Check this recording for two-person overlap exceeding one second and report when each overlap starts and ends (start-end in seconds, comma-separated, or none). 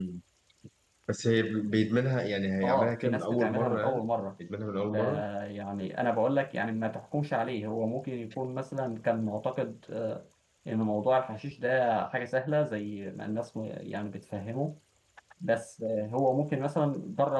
2.6-4.0